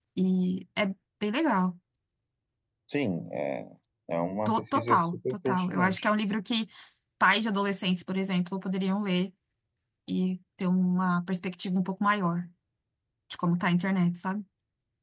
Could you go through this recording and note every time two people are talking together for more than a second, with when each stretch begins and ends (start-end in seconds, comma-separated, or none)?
4.4-6.1